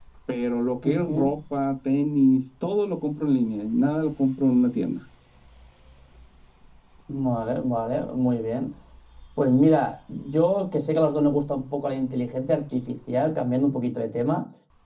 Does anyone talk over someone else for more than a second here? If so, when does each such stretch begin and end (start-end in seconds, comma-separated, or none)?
none